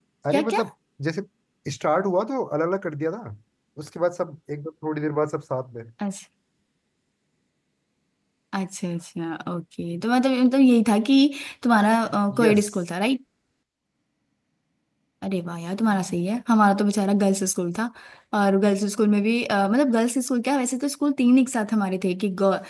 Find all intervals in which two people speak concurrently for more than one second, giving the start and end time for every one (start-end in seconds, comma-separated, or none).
none